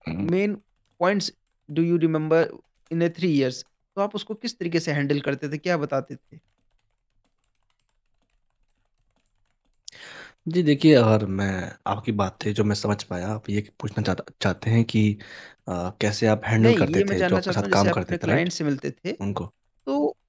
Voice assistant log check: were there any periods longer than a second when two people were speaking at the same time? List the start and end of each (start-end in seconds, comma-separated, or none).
16.6-18.5